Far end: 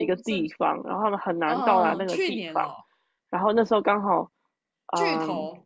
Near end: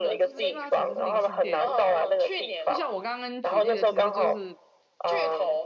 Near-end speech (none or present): present